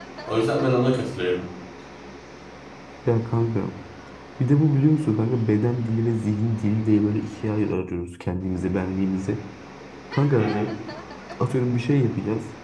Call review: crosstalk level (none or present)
none